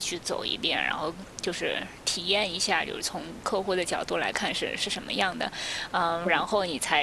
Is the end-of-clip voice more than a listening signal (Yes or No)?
No